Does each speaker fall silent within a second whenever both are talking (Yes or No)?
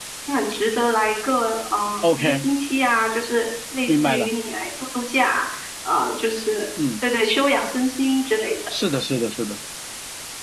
Yes